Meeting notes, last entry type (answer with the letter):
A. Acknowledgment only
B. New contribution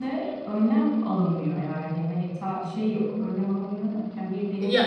A